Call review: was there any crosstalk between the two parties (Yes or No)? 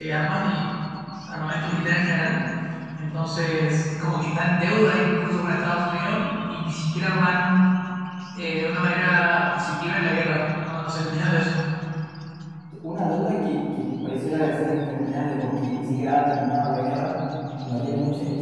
No